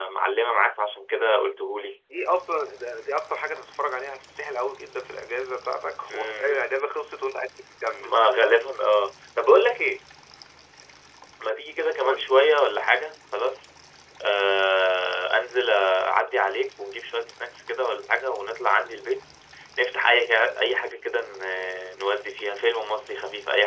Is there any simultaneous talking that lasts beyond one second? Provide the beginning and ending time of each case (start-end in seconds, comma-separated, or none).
none